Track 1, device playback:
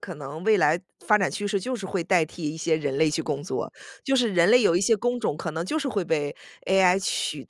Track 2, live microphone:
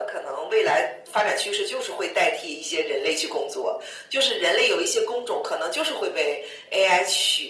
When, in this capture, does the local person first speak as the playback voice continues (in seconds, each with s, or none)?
none